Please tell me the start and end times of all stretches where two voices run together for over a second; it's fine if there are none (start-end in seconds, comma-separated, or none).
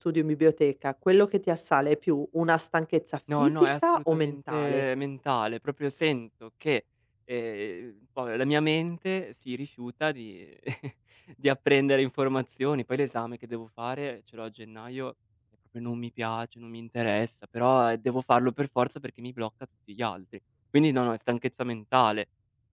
3.4-4.8